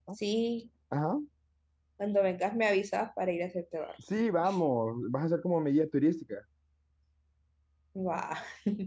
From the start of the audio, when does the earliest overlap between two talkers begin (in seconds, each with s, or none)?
none